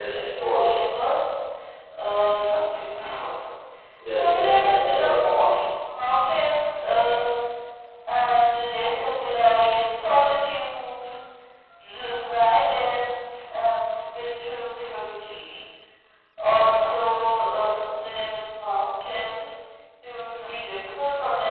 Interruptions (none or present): present